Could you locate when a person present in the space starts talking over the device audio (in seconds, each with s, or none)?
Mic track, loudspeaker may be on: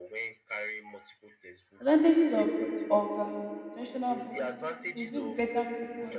1.8 s